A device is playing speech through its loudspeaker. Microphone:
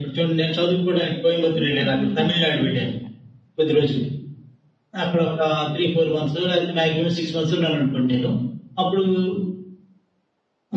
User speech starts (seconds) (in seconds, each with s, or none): 1.6 s